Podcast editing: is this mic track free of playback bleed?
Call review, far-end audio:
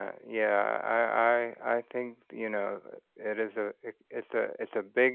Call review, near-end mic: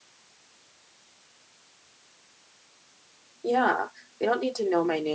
Yes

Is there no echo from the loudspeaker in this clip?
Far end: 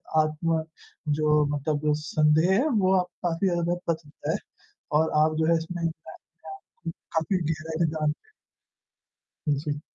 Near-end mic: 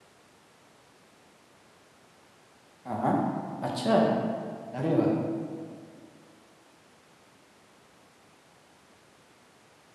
Yes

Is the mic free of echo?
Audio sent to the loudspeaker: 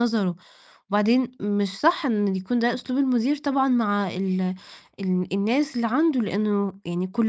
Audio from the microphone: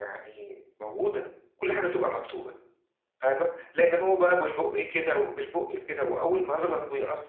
Yes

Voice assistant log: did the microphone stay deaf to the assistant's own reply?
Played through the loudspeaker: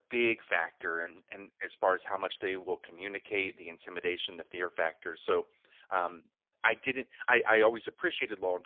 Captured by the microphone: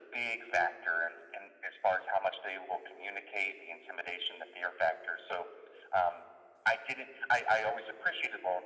No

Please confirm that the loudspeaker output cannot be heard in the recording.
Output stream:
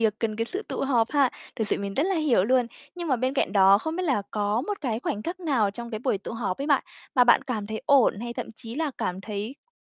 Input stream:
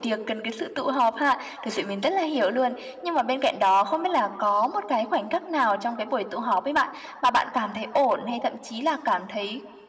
No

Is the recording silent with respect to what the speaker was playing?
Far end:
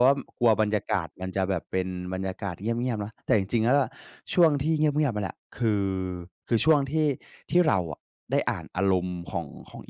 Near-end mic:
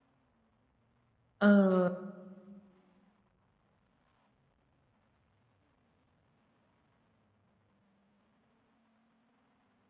Yes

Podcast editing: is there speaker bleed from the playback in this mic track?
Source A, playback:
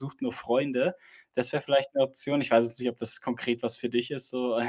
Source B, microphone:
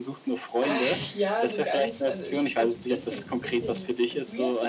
Yes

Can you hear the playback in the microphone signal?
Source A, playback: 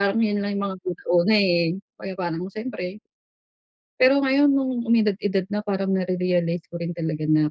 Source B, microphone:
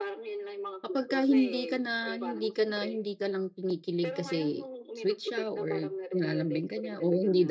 Yes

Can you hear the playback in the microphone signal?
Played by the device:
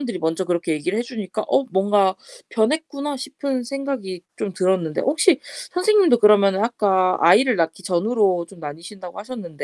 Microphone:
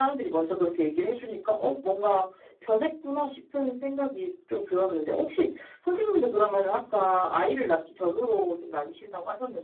Yes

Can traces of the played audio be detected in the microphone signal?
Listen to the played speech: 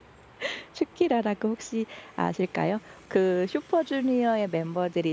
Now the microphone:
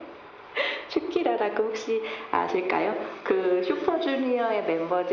Yes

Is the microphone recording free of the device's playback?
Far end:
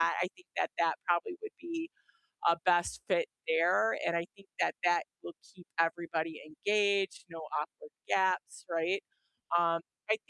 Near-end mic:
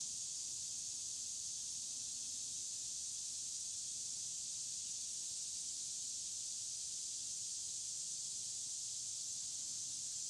Yes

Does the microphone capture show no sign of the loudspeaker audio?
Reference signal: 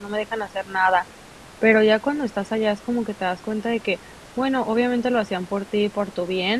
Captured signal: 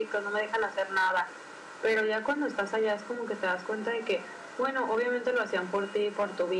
No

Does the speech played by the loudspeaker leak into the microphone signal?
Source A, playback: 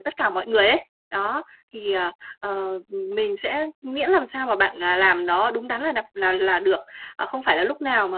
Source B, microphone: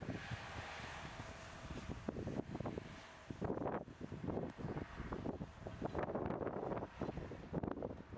No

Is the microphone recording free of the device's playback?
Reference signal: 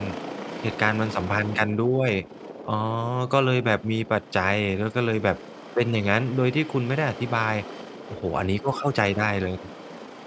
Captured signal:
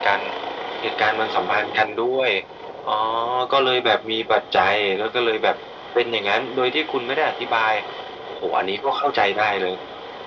No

